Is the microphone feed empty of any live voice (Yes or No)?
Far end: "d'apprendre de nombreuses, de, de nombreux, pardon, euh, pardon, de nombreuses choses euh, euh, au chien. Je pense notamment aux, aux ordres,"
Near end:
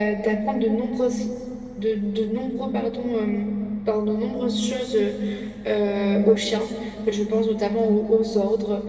Yes